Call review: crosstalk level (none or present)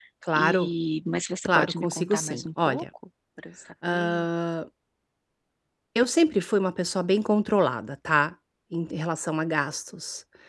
present